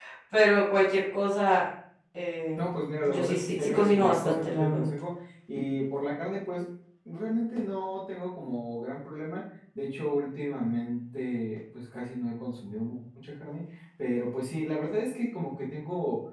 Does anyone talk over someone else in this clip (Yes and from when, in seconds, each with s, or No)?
Yes, from 3.0 s